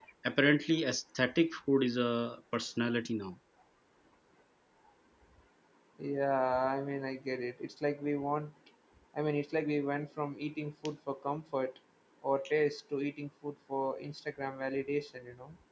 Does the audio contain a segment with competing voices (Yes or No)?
No